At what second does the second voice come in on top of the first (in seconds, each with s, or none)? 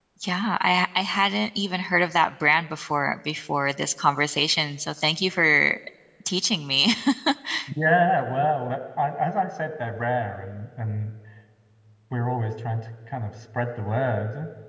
none